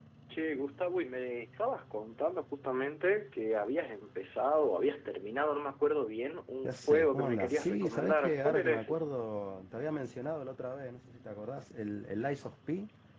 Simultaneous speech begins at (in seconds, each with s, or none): 6.6 s